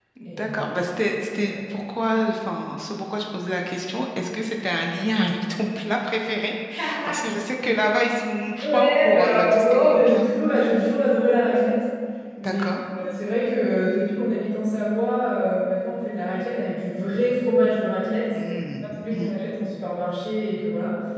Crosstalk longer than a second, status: present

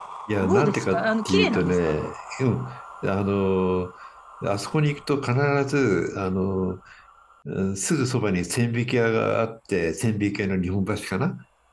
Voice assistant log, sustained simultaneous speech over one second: present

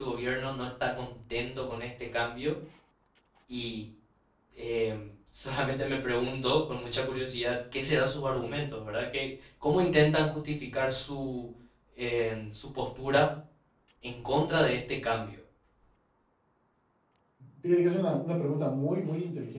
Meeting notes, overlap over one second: none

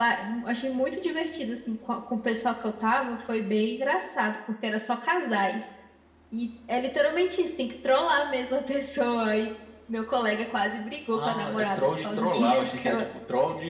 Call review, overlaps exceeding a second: present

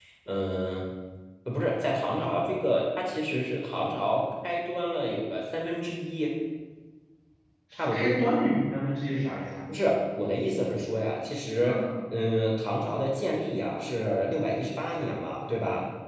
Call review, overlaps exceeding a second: none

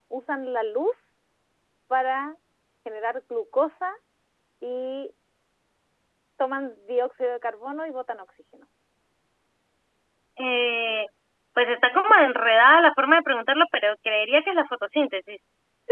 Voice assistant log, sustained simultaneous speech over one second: none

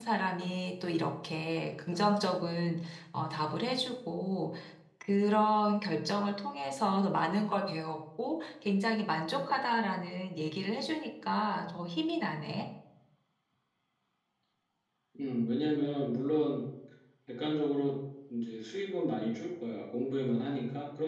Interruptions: none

